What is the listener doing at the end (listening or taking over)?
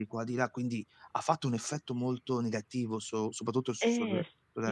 taking over